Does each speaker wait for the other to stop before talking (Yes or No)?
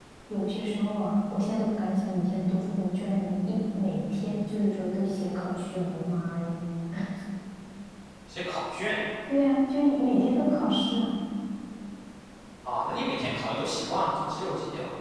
Yes